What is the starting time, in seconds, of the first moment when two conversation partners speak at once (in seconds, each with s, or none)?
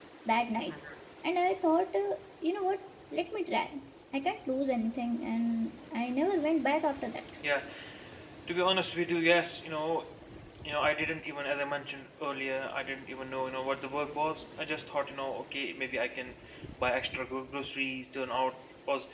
none